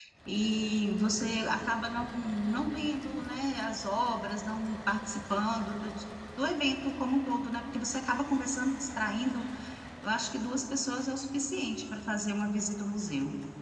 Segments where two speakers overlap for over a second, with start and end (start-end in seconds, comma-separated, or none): none